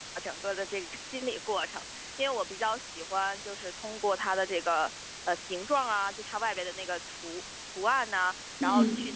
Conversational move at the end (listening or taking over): listening